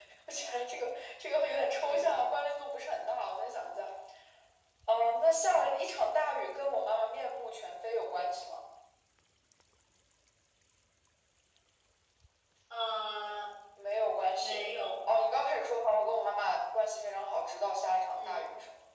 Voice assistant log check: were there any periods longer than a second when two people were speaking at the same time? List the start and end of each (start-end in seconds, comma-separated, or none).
none